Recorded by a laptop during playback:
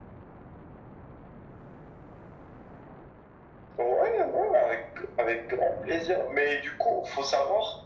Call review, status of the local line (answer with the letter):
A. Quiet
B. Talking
A